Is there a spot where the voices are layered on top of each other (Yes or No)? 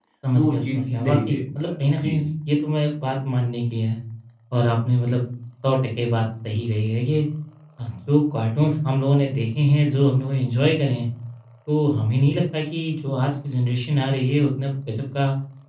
Yes